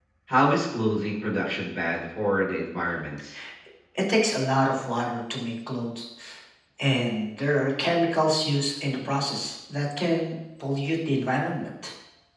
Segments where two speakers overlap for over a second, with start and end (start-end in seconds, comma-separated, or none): none